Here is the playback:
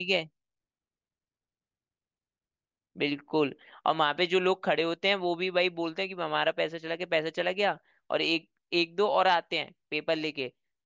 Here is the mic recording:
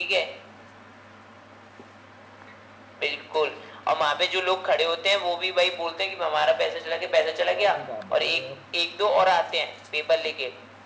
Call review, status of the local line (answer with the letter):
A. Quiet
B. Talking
B